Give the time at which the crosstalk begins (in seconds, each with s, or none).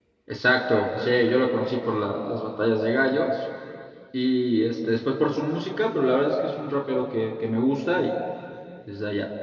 none